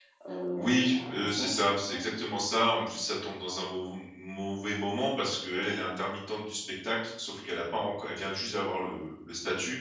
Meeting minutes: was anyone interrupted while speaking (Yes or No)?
Yes